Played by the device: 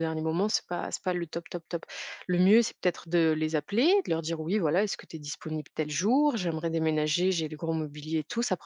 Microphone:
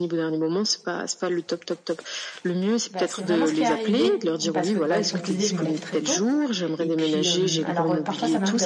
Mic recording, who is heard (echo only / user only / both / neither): both